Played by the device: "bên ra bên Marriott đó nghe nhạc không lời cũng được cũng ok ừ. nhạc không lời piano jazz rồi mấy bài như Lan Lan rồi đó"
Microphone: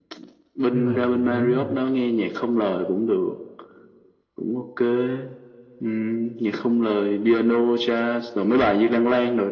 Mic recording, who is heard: both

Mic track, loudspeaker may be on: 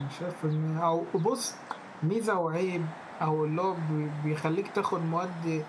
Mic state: user only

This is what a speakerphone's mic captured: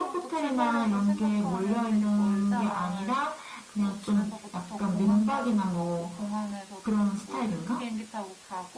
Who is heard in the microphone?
both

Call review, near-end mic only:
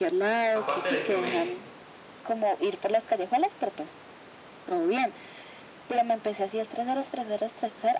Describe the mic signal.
both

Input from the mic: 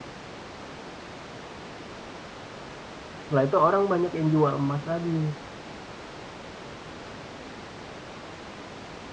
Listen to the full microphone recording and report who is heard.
user only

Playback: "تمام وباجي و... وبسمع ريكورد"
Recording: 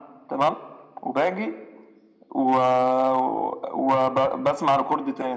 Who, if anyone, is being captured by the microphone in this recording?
echo only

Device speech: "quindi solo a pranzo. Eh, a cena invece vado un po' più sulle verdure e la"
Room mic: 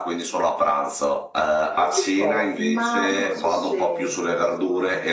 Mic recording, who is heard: both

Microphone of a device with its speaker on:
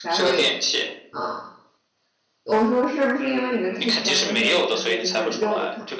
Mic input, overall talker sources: both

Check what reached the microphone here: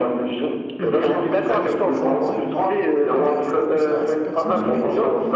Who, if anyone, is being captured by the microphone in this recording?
both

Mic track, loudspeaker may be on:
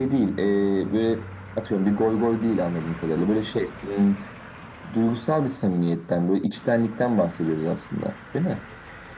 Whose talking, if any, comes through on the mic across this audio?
echo only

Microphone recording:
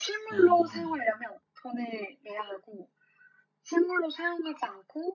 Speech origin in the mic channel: both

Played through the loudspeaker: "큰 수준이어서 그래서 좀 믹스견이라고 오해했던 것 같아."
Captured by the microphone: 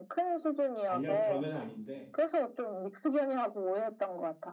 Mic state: both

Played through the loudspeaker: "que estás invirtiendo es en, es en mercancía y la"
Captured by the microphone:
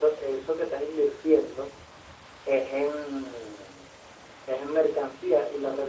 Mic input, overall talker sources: echo only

